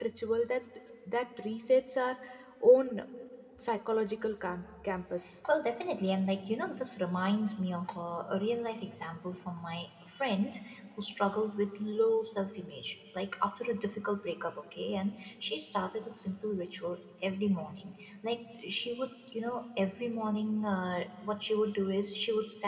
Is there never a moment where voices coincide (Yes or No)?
Yes